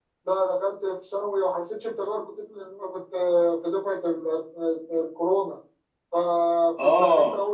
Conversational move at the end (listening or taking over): listening